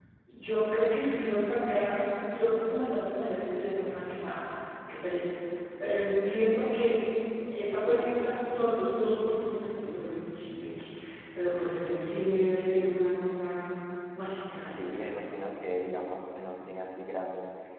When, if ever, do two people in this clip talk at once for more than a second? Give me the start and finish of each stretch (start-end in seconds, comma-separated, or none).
none